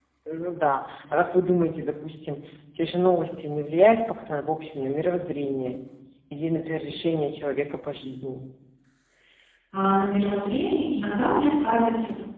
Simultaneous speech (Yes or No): No